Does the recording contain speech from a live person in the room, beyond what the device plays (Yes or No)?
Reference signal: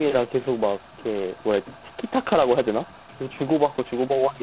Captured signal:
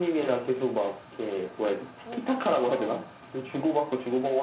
Yes